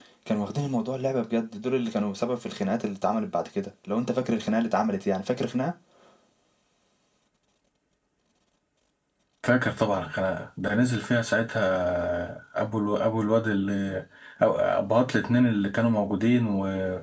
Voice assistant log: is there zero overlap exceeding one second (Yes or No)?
Yes